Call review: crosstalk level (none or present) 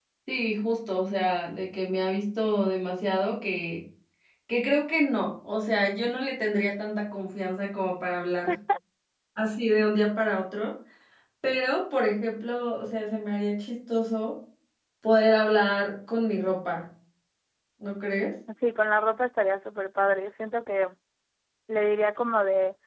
none